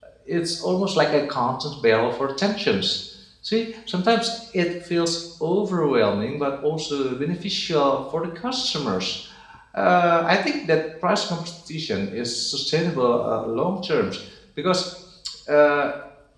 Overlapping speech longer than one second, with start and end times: none

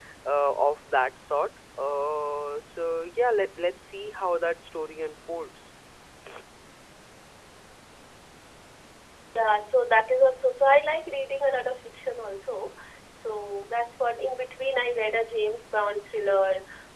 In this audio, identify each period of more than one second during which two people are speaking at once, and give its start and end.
none

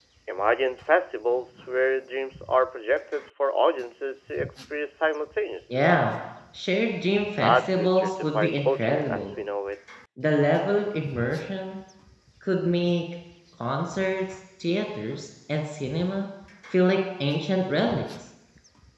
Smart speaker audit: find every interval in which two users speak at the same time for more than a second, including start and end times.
7.4-9.3

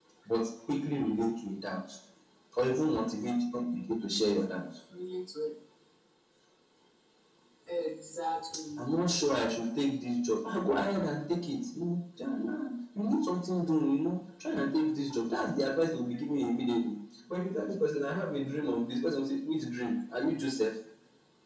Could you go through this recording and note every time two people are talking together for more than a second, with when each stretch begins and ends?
none

